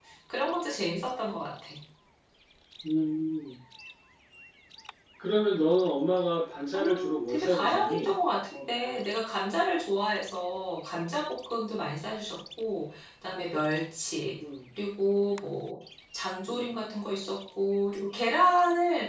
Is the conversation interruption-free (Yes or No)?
No